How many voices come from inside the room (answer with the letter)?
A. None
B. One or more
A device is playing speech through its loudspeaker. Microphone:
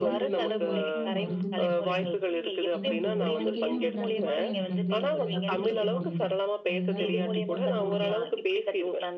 B